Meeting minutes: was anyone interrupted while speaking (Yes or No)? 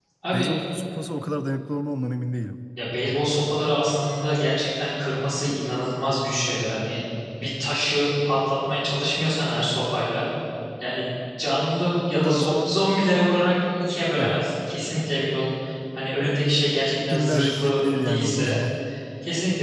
Yes